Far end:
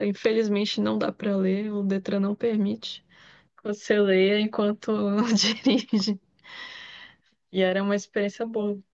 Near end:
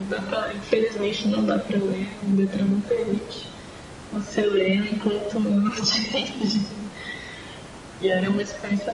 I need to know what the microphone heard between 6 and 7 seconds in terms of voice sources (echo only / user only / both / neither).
echo only